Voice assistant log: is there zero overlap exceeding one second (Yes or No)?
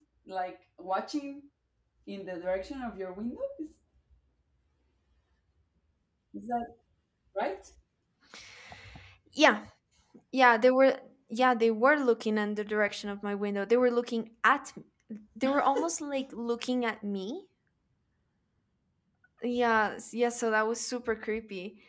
Yes